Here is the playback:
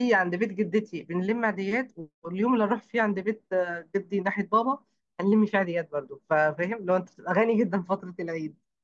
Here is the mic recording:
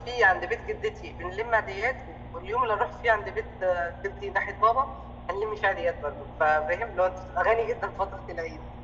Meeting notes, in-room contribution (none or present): none